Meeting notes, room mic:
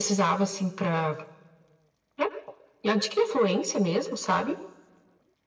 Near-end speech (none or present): none